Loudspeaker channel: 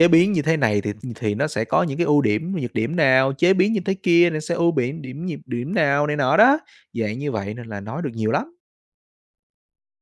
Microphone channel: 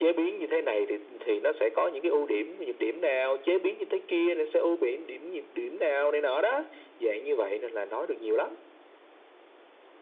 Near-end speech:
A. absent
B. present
A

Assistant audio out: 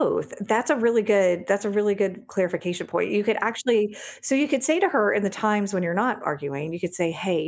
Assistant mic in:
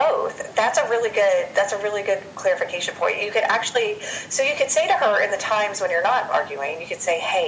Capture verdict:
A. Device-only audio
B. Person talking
A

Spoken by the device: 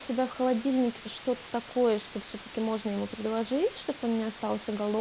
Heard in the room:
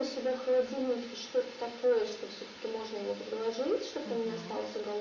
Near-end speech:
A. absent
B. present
B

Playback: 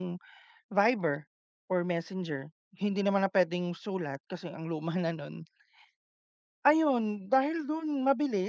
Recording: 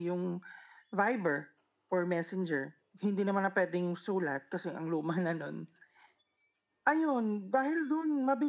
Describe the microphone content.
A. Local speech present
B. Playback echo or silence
B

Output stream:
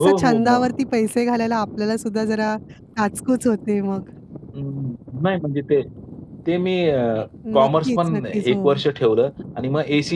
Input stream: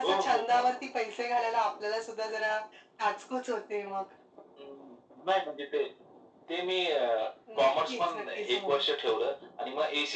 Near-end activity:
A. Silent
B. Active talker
A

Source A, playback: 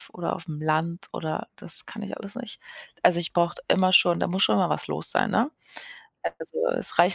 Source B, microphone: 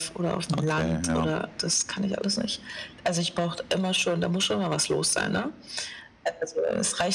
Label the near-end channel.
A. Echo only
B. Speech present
B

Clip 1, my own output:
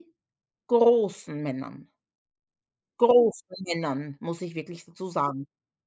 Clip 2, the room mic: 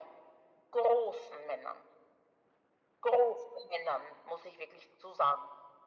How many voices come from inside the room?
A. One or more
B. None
B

